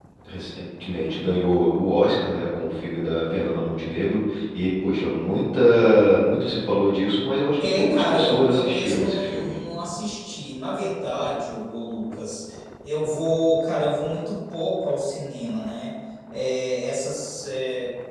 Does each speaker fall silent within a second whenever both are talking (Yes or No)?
No